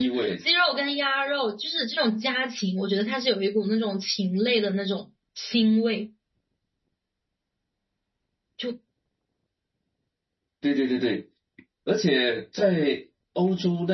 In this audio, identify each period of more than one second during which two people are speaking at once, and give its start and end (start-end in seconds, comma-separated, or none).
none